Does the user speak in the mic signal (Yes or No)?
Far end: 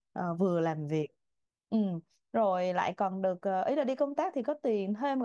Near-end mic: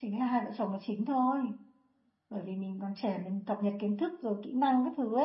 Yes